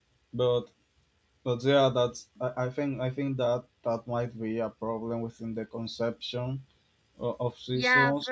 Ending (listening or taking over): taking over